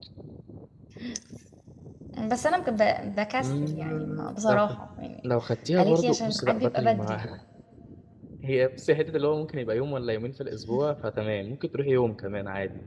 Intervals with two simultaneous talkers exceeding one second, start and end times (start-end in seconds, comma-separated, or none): 3.4-4.6, 5.8-7.2